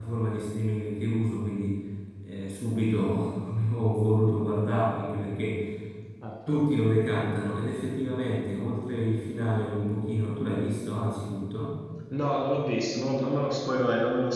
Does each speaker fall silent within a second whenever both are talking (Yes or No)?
Yes